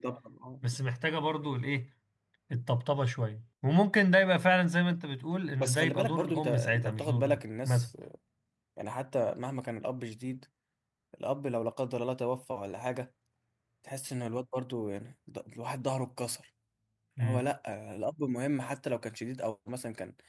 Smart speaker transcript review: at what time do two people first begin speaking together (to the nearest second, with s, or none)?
6 s